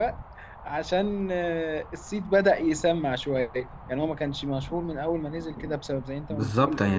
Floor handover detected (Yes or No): Yes